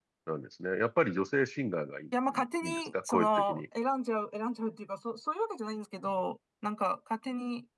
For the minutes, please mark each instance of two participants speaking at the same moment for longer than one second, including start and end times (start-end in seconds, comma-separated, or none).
2.3-3.6